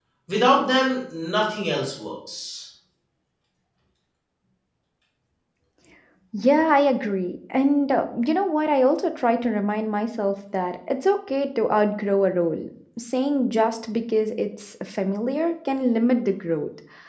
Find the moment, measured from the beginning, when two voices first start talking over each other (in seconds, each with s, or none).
none